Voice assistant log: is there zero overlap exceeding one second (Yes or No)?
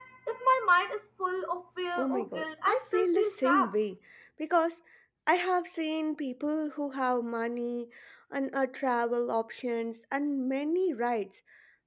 No